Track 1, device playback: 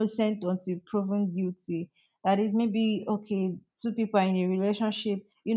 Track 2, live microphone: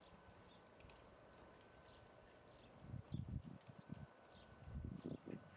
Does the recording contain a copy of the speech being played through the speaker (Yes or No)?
No